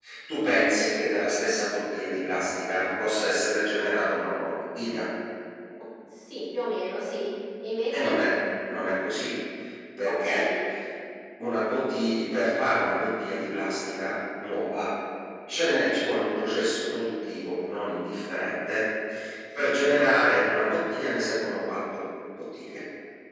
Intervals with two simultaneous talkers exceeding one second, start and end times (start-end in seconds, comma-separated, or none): none